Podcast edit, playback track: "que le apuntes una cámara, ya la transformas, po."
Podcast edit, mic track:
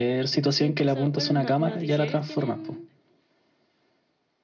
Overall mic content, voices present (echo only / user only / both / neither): both